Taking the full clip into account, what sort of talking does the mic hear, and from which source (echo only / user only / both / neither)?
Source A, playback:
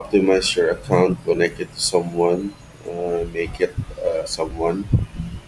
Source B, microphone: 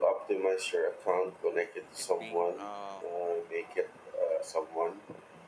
both